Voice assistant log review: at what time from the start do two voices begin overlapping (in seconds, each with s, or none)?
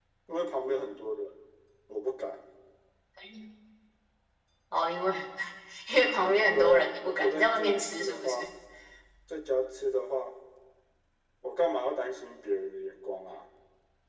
6.5 s